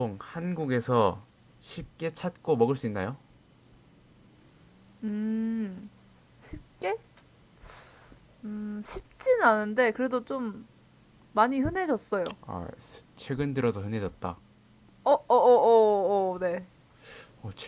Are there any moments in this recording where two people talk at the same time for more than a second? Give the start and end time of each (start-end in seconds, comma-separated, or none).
none